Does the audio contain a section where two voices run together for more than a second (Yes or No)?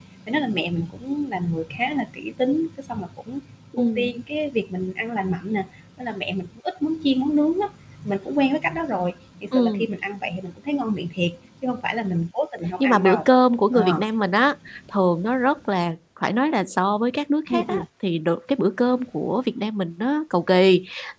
No